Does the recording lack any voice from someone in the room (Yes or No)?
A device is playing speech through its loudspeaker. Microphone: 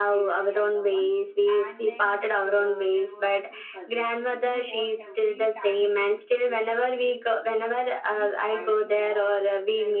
No